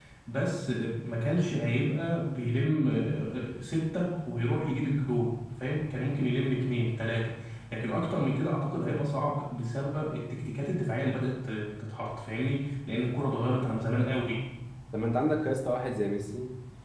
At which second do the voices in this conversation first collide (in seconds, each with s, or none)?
none